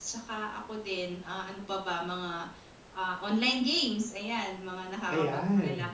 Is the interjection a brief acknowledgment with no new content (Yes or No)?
No